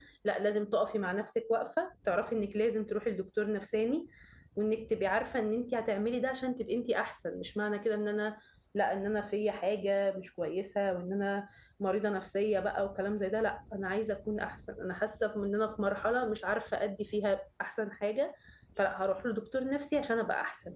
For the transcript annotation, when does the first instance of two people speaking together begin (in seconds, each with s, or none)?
none